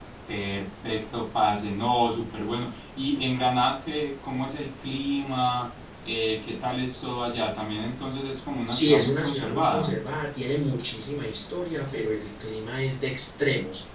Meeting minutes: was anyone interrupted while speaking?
Yes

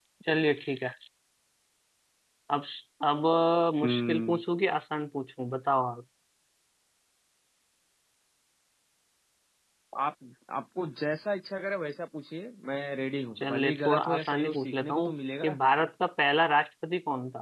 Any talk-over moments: Yes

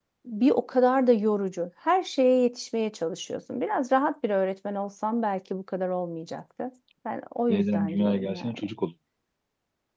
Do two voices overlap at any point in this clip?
Yes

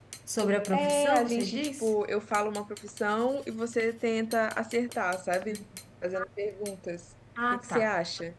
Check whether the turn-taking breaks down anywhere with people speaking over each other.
Yes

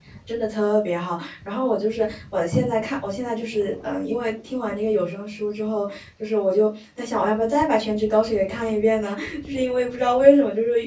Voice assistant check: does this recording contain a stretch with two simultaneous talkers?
No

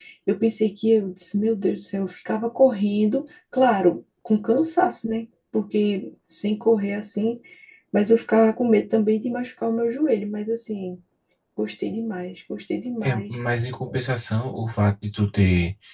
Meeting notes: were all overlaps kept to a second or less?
Yes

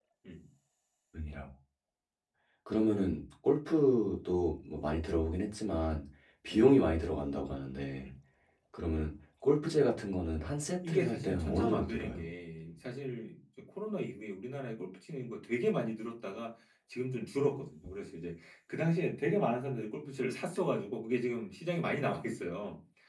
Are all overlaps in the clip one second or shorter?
No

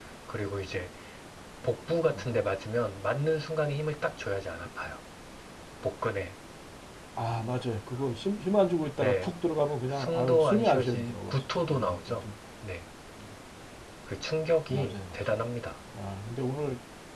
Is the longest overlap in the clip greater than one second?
Yes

